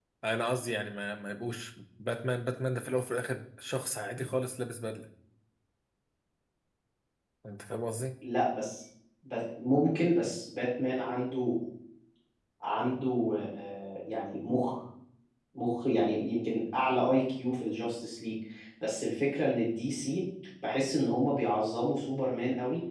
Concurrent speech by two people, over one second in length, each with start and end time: none

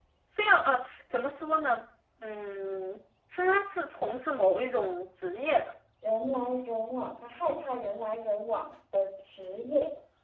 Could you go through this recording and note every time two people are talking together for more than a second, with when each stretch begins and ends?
none

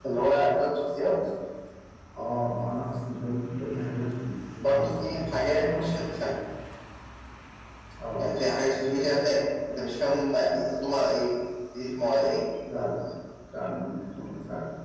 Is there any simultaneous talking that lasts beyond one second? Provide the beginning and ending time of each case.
4.6-5.9

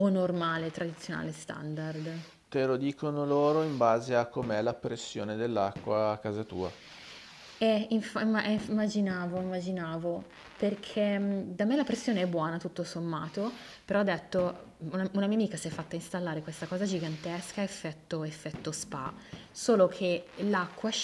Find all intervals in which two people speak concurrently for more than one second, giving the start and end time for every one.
none

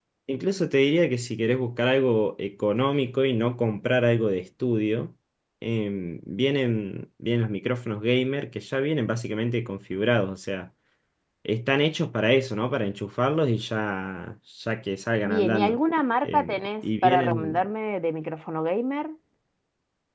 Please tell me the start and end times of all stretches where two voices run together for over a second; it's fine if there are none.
16.2-17.6

